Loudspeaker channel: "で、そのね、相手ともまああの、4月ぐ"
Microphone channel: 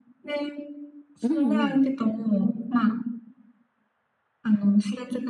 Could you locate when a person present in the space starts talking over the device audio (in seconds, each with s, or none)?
1.2 s